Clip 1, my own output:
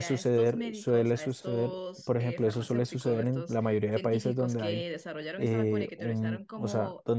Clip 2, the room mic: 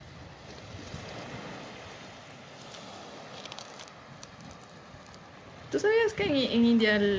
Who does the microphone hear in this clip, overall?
user only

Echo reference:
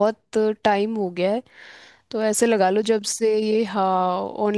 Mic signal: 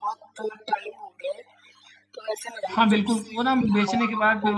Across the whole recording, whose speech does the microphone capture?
both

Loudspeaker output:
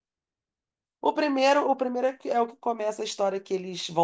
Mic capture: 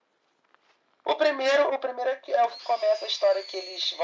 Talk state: echo only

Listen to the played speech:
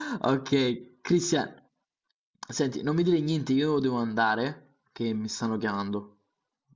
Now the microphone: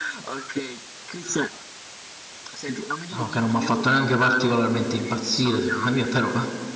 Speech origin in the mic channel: both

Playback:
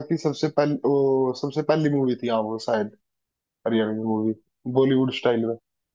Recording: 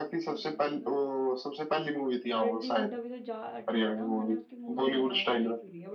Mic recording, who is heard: both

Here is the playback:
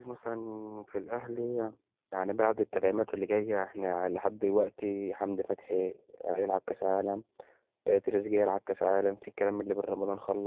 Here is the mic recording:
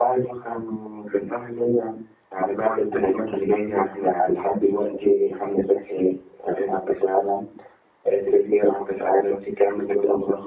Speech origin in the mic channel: echo only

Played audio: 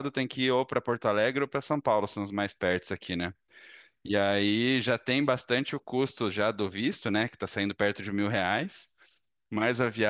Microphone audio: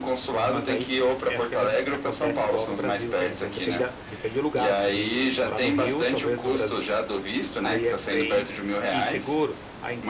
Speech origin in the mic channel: both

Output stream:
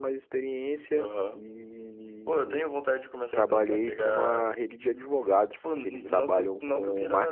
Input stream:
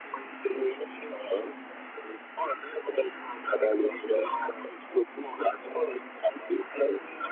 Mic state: echo only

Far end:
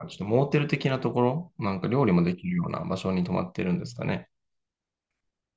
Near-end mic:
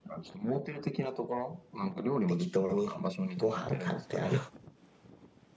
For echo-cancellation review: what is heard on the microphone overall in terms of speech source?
both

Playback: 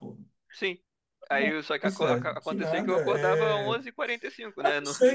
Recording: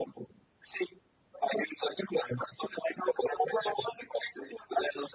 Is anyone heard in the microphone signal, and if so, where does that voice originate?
echo only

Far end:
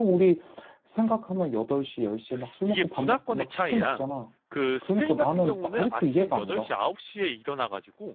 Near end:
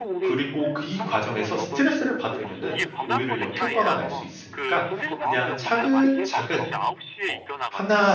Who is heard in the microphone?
both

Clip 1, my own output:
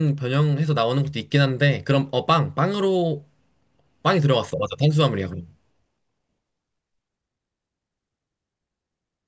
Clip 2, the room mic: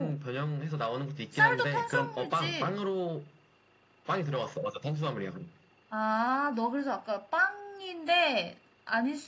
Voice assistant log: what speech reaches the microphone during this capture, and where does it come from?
both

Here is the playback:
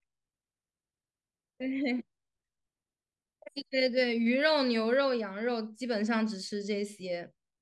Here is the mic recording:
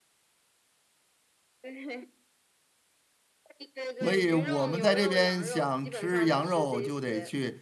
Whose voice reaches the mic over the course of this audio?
both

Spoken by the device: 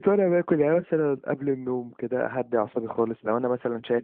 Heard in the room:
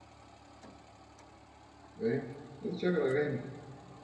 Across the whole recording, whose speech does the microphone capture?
user only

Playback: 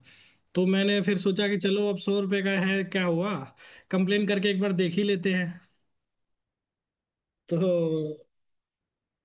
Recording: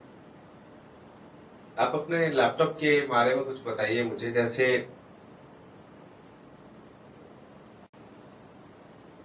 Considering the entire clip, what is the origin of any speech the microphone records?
user only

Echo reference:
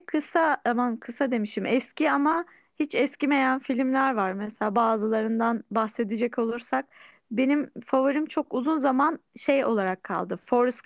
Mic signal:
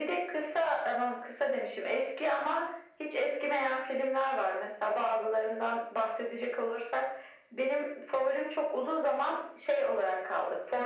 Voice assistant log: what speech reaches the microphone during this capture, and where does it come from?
echo only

